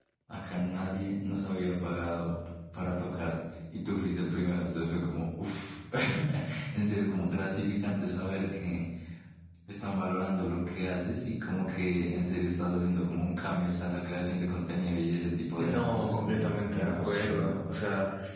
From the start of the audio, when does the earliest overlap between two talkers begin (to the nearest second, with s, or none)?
16 s